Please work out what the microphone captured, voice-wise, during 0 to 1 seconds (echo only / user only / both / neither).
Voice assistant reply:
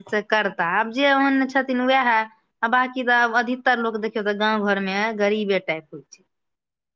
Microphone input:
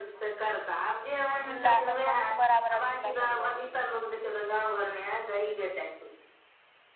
echo only